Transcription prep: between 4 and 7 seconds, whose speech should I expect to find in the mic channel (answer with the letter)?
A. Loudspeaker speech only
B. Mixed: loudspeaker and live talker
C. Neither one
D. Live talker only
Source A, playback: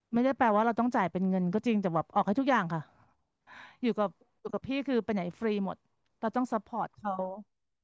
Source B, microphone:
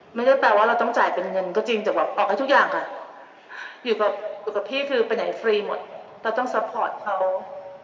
A